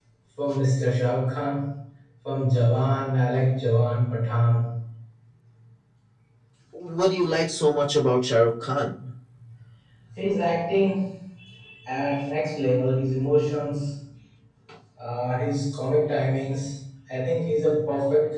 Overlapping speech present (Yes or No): No